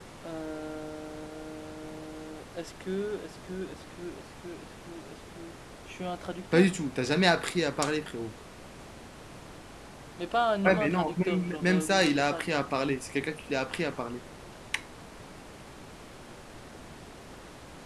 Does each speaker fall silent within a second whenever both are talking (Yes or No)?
No